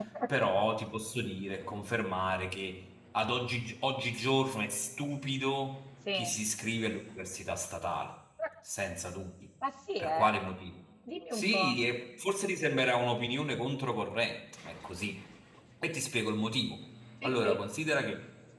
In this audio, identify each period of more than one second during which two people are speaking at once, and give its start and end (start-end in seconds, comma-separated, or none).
none